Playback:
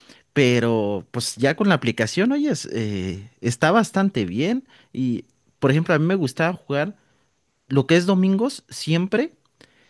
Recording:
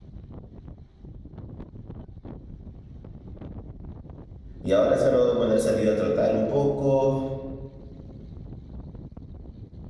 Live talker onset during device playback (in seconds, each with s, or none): 4.6 s